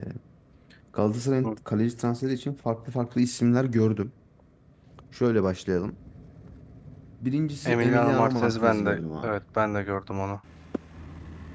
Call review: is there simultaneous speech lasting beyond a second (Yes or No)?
Yes